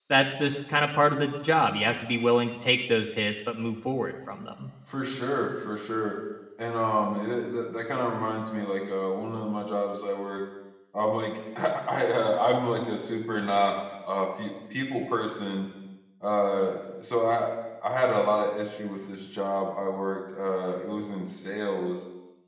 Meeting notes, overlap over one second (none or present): none